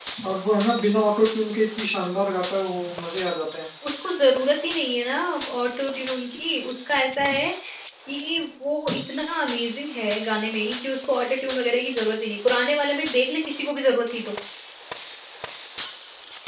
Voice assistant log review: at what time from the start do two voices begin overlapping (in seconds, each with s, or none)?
none